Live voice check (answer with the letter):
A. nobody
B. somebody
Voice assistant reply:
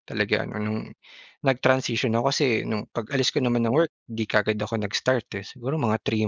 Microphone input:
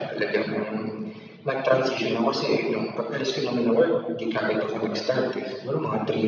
A